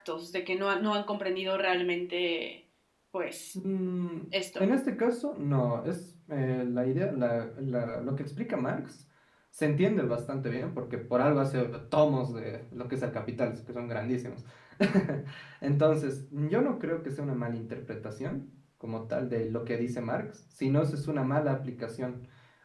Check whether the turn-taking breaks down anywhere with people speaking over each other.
No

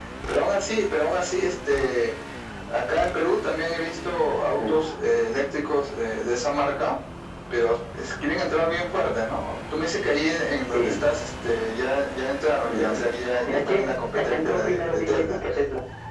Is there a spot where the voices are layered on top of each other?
Yes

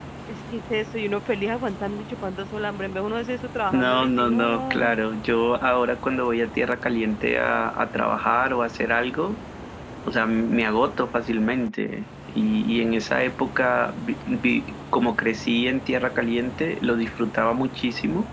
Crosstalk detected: Yes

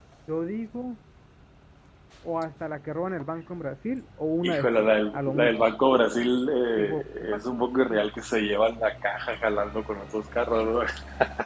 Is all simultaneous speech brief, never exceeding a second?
No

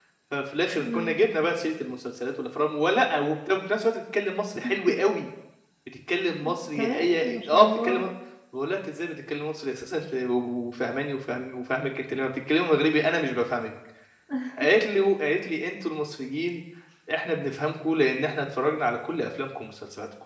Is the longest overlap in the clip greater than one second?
Yes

